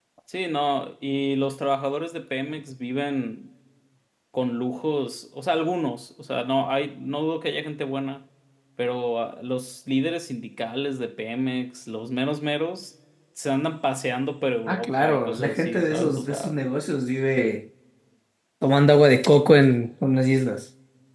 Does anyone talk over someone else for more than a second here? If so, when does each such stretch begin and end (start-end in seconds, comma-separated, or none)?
14.7-16.6